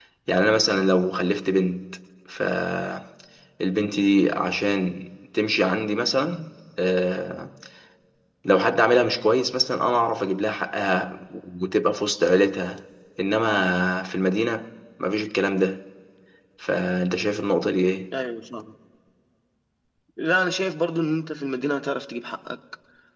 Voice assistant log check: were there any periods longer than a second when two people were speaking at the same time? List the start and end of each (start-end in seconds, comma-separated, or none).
none